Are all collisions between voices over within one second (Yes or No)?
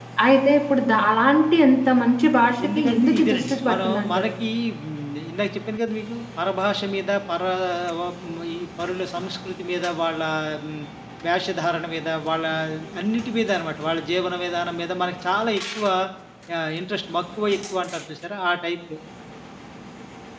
No